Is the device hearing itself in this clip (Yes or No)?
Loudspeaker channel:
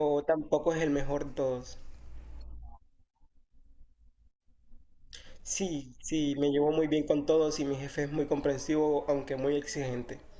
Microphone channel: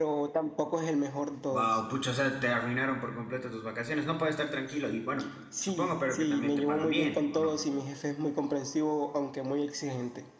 Yes